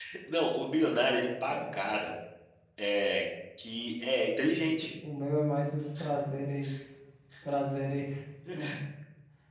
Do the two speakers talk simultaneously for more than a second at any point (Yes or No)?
No